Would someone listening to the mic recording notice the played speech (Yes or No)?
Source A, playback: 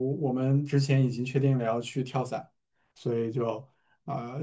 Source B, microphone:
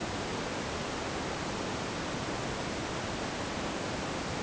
No